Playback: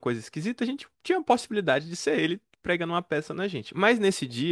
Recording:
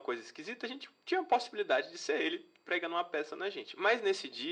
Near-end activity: none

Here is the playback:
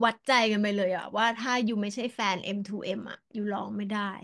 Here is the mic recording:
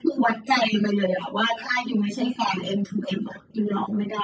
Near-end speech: none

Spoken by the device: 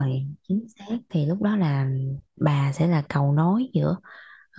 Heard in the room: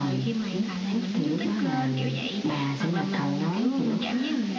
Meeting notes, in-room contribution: present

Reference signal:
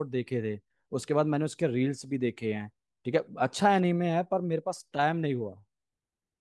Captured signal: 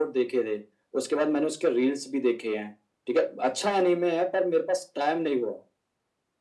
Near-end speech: none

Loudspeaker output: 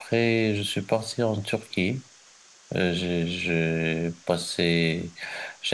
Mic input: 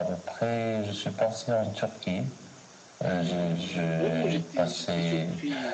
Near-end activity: present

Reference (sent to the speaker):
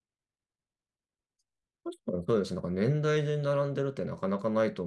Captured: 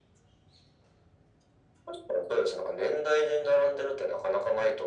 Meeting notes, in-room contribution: none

